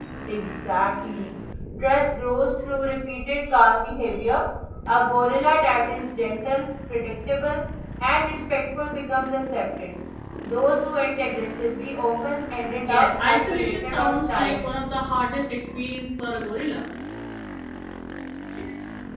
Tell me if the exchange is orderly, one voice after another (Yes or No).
No